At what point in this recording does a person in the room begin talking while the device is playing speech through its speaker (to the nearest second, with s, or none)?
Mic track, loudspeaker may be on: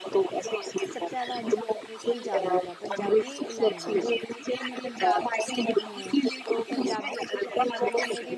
1 s